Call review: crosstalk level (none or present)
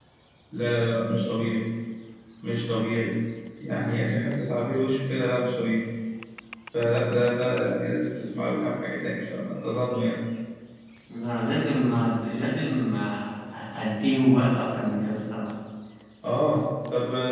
none